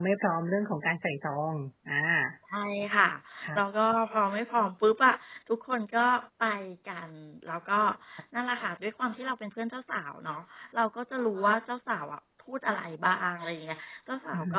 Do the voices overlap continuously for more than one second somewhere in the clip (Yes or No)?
No